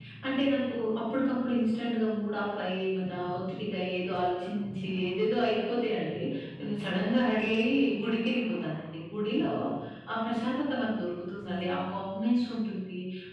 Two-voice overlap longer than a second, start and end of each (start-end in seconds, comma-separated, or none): none